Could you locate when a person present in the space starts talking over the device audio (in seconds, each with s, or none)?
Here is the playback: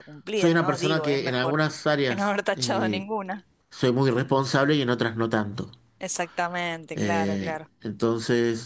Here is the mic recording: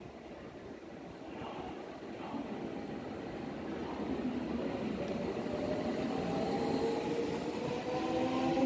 none